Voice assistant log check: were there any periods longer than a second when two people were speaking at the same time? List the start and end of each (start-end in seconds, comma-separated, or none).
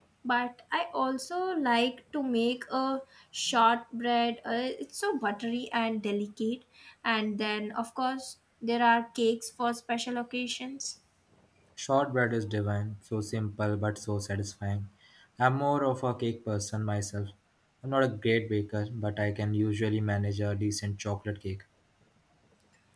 none